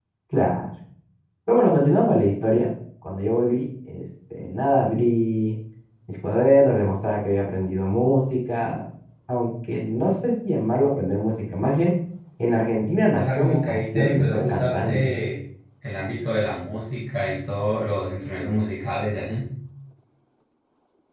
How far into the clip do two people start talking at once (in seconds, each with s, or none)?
13.2 s